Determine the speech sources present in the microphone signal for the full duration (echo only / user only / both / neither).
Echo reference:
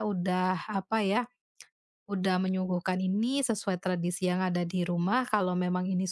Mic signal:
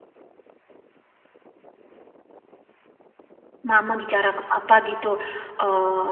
user only